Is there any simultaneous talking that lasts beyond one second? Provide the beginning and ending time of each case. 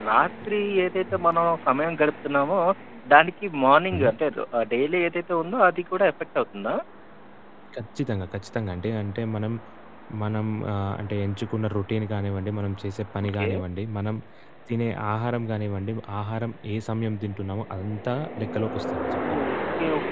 none

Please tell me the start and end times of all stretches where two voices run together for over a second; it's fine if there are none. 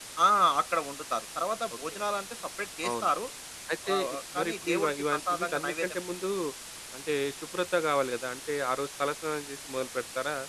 3.9-6.0

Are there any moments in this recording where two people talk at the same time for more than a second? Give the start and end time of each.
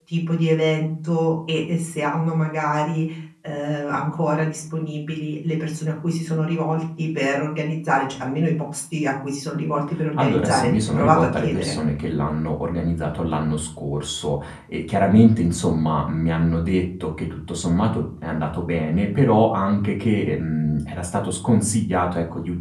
10.2-11.8

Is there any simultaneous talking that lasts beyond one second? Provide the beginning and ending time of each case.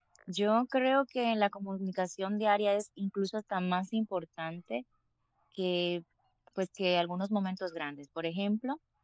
none

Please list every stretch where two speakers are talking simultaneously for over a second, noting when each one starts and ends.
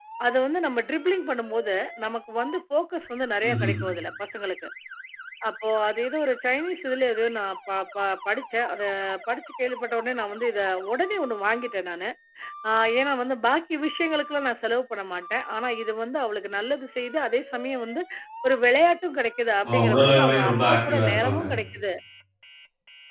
19.7-21.4

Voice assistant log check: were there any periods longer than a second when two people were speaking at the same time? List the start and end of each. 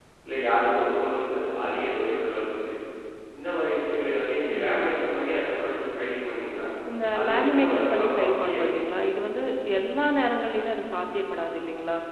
7.2-8.6

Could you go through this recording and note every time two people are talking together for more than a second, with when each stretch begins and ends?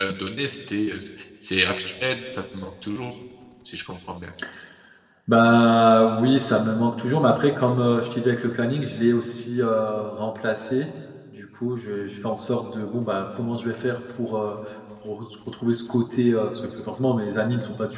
none

